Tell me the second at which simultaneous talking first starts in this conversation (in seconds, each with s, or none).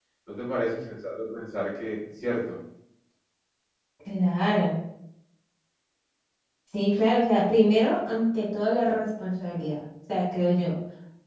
none